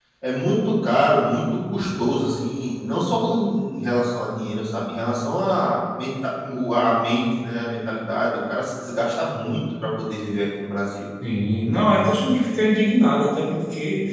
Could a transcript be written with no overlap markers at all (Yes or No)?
Yes